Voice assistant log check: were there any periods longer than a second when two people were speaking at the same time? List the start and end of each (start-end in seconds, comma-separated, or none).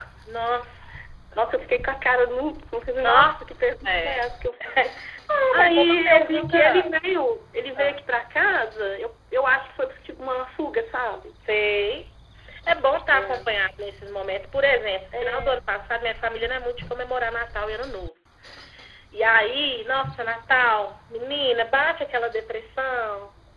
5.5-6.9